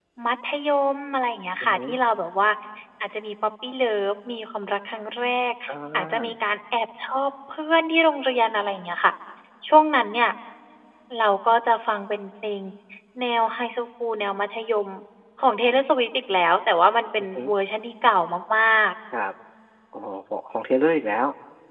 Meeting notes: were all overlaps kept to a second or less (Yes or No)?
Yes